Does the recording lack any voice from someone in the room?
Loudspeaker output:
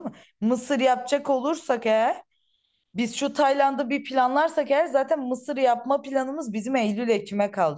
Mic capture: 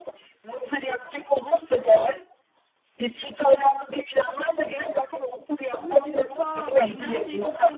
No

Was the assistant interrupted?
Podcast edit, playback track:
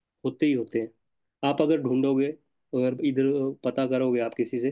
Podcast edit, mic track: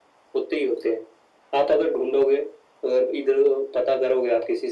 No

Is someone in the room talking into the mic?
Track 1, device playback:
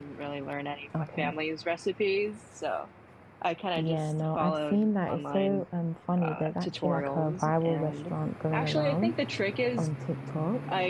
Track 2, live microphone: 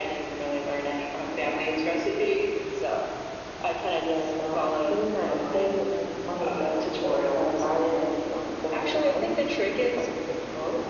No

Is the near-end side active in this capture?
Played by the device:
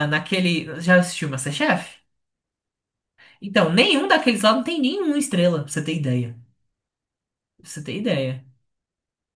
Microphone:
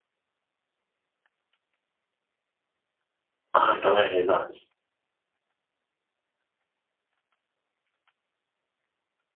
Yes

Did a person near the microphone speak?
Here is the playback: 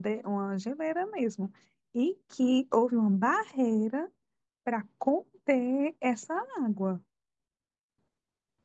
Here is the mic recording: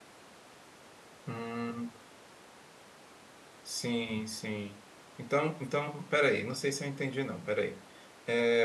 Yes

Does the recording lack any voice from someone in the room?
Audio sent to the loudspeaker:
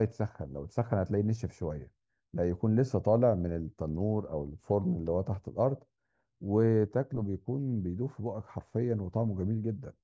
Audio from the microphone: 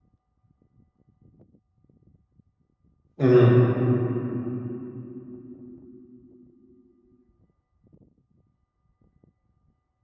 No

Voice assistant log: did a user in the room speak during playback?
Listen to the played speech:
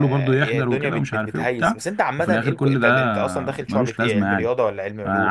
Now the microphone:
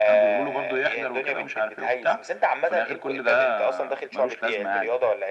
No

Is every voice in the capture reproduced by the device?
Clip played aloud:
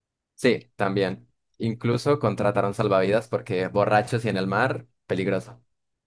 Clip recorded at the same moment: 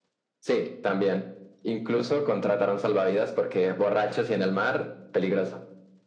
Yes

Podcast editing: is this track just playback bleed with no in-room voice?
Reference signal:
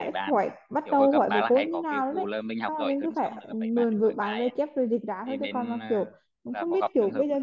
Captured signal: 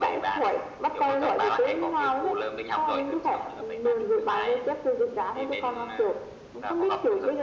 Yes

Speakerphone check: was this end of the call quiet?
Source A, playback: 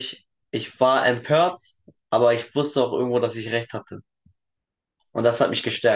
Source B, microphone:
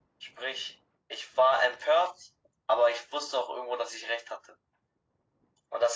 Yes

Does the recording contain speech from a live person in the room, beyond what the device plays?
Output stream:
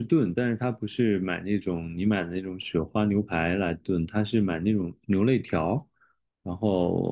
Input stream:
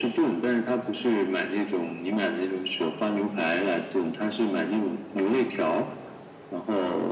No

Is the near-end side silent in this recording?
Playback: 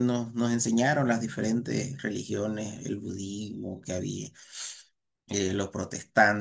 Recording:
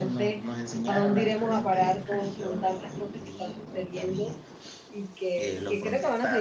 No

